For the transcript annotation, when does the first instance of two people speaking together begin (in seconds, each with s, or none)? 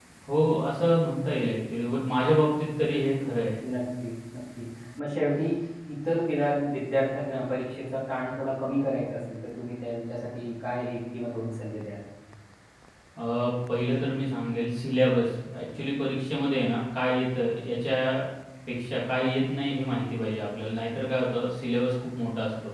none